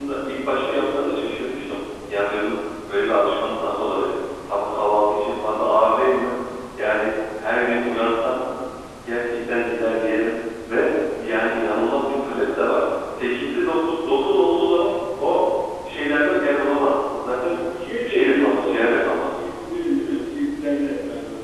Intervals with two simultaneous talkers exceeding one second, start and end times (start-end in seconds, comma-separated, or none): 18.0-19.4